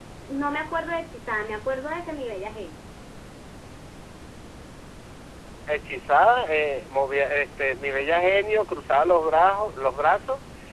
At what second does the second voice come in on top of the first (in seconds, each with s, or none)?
none